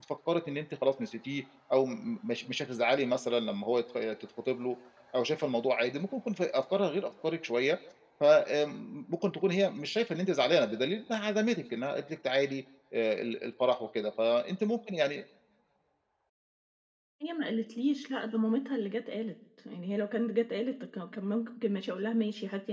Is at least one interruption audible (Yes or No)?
No